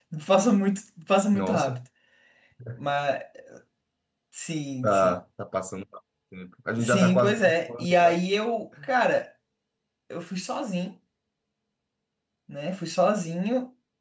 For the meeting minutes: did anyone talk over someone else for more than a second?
Yes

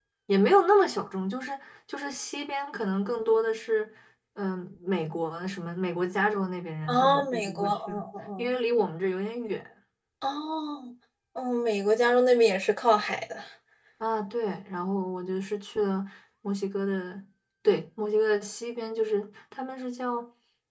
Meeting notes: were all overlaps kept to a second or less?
No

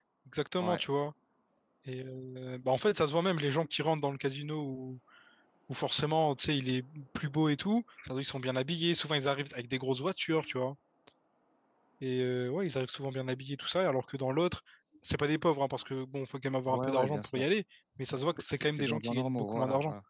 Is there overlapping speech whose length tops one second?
Yes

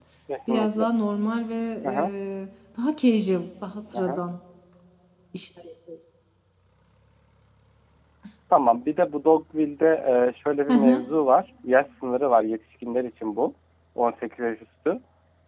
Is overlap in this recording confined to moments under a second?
Yes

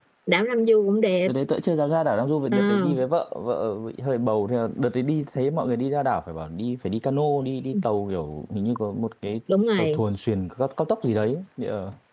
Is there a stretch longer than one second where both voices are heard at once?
No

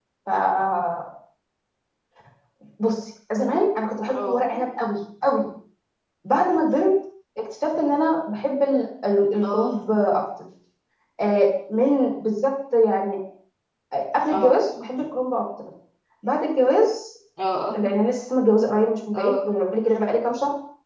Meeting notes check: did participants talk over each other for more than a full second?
No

